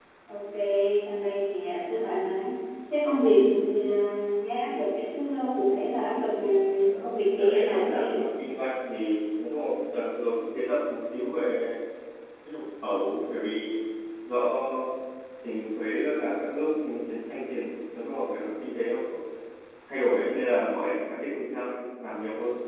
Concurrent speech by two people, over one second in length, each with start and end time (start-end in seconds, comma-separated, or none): 7.0-8.2